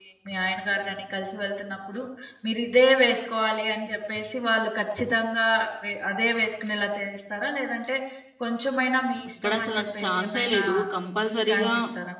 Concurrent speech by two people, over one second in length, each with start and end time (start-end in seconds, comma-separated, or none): 9.4-10.6